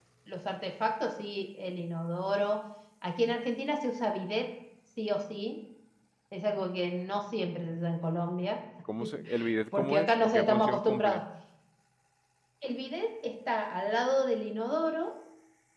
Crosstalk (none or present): present